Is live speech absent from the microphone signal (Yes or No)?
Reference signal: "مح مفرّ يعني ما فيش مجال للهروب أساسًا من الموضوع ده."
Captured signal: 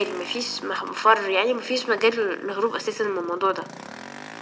Yes